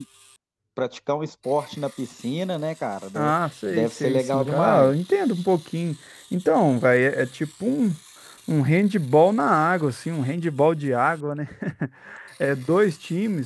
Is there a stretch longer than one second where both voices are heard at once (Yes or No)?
Yes